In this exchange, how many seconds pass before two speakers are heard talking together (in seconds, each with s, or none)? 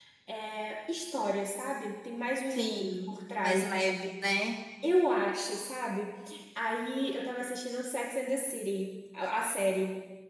2.5 s